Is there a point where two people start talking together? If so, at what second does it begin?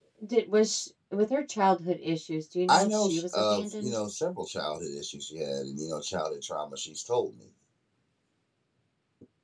2.7 s

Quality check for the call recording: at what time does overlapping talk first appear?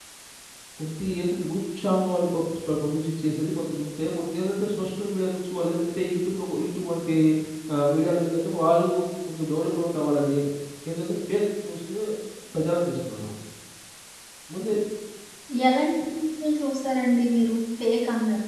none

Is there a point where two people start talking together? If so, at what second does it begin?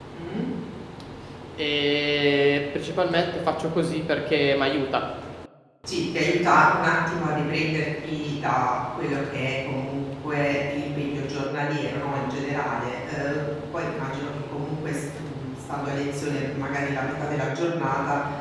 none

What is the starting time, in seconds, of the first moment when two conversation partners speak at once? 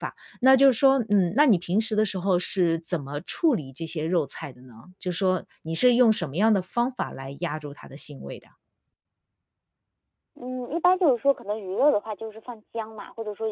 none

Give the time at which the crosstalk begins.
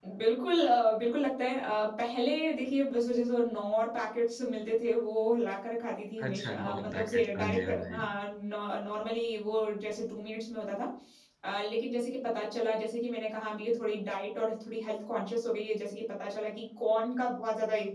6.2 s

